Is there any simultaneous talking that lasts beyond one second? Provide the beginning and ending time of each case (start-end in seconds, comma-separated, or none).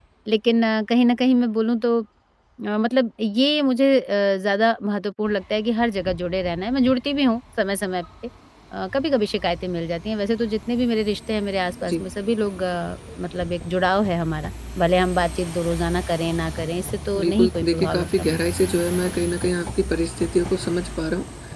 17.2-18.4